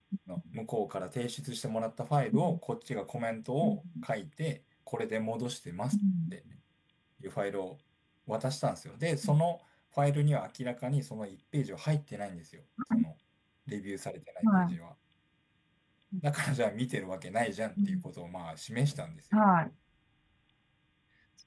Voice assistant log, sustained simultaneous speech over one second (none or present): none